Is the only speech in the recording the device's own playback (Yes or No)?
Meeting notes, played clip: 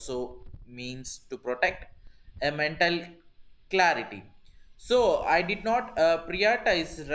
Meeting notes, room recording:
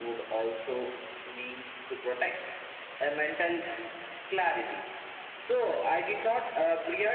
Yes